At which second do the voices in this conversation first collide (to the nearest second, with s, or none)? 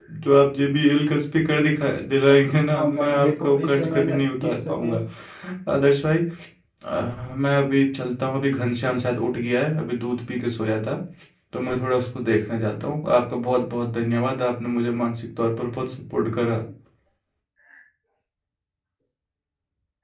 3 s